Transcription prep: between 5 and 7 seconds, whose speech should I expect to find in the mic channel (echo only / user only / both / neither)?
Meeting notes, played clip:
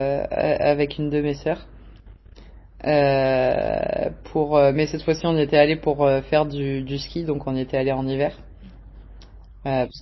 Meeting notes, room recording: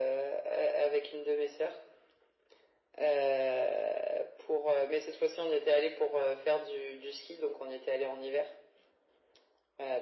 echo only